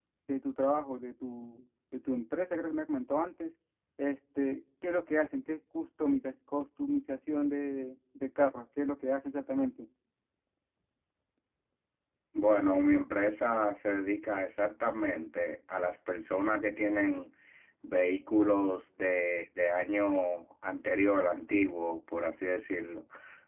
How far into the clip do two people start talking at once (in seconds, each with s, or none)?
none